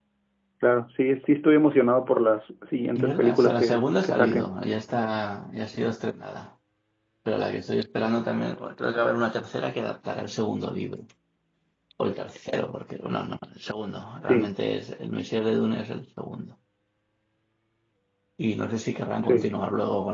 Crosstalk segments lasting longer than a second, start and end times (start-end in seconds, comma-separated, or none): 3.0-4.5